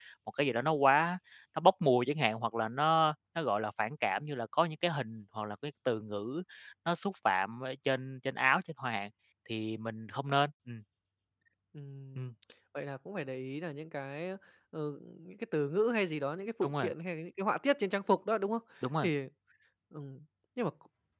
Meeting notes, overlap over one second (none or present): none